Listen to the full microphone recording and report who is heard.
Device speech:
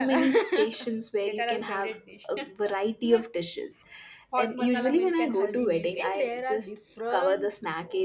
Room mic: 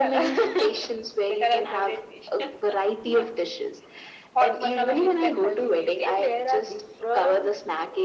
echo only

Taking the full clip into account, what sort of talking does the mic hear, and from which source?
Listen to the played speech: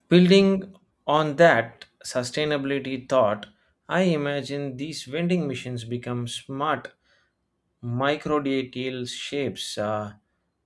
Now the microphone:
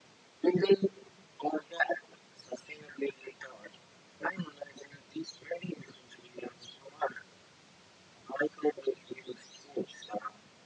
echo only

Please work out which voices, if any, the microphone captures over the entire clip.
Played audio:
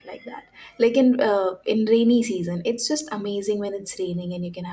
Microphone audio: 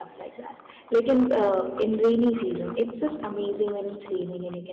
echo only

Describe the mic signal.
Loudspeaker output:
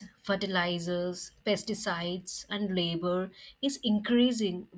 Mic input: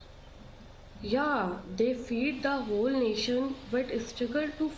user only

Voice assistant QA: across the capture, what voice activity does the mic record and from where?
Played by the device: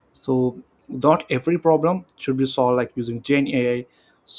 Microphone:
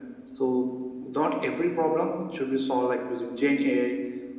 echo only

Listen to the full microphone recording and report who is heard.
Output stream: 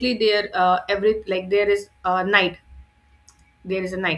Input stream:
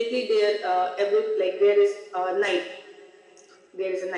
echo only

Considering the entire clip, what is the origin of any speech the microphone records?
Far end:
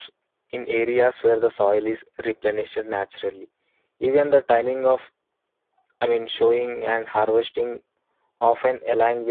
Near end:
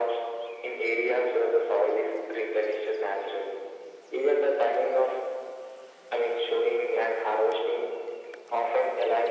echo only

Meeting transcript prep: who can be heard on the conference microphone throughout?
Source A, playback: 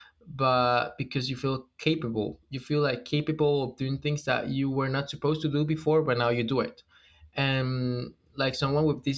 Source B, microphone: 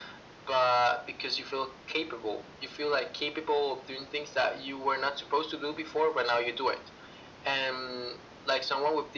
echo only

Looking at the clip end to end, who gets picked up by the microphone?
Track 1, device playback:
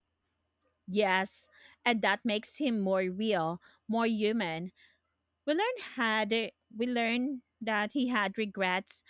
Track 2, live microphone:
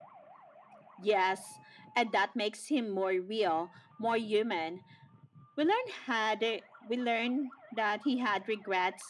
echo only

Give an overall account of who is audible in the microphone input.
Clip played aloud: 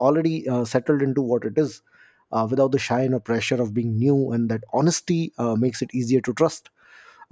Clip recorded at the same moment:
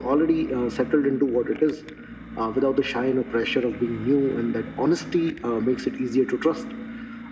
echo only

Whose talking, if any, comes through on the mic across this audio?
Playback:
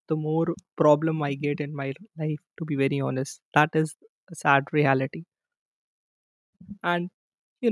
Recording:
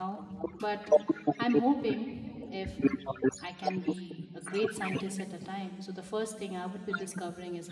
both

